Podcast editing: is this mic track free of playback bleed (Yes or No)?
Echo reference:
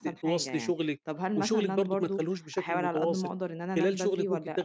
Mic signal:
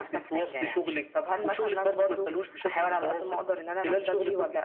No